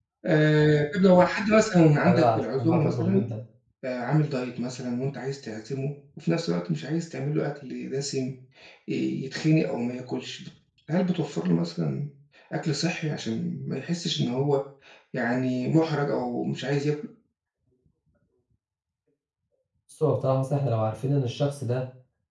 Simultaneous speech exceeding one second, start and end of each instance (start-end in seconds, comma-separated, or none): 2.0-3.3